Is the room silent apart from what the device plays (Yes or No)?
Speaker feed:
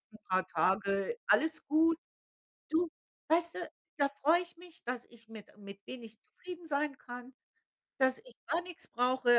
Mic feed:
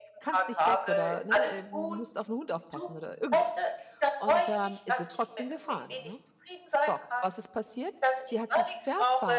No